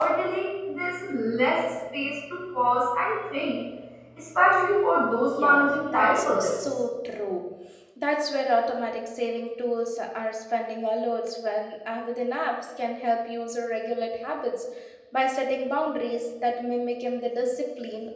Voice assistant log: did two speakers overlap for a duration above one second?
Yes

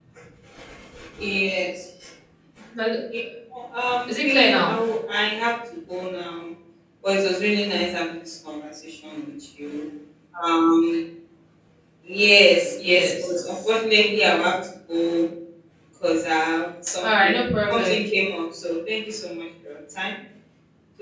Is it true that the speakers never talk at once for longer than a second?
No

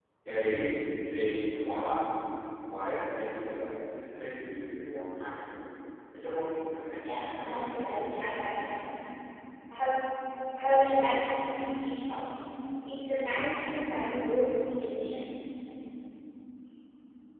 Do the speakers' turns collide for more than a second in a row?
Yes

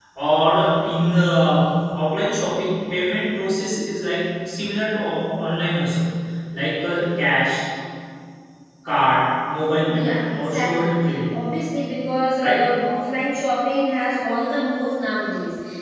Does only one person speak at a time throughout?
No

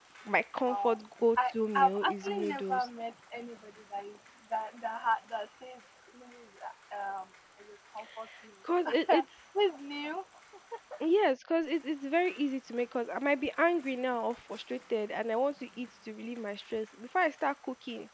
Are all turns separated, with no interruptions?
No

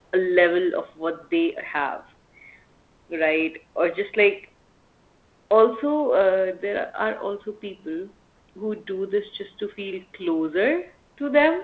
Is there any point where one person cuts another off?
No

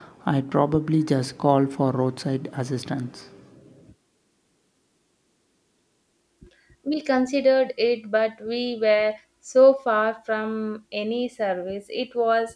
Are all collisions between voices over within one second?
Yes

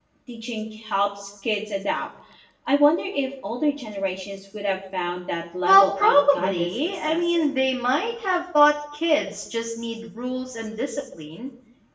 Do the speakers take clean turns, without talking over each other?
No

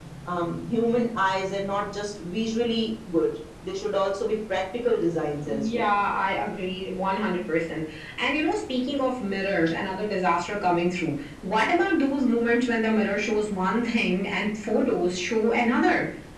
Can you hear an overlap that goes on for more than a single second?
No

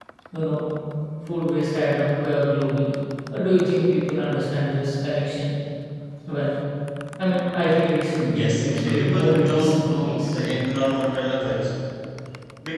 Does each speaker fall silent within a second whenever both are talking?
No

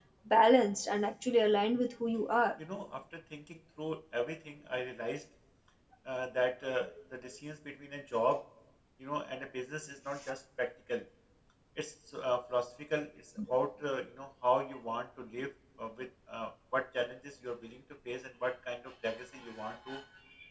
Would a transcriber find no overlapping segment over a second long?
Yes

